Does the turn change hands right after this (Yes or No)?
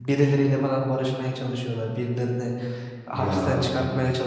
No